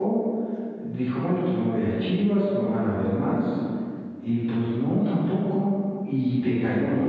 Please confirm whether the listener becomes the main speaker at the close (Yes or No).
No